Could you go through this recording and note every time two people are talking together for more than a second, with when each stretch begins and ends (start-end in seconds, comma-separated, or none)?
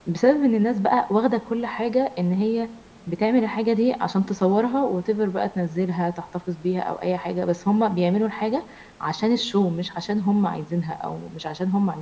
none